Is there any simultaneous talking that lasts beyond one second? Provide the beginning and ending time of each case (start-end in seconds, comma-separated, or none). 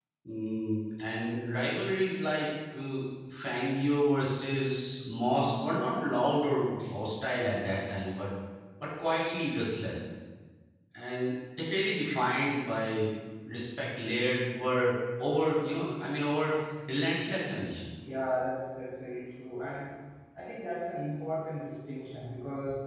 none